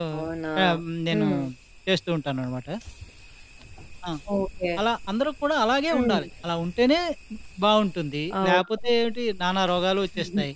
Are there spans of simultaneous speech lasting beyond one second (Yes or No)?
No